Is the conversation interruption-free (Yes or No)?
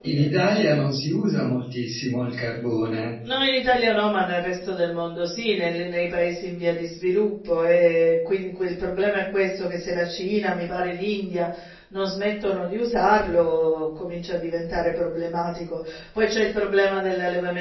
Yes